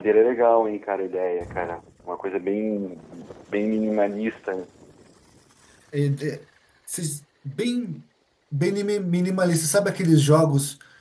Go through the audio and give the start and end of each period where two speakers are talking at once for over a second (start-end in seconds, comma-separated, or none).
none